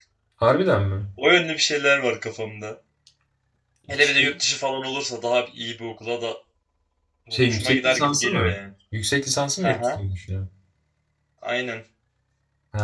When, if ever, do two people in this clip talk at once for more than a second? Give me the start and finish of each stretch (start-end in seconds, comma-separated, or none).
7.3-8.6